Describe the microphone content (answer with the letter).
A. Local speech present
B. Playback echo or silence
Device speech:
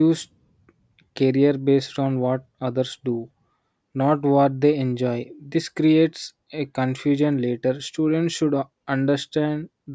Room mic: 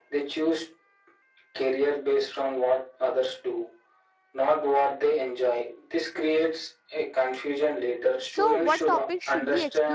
A